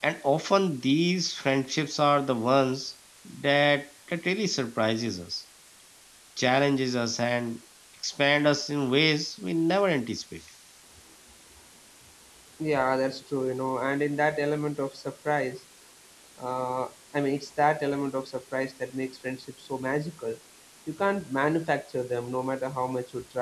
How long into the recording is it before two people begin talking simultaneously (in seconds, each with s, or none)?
none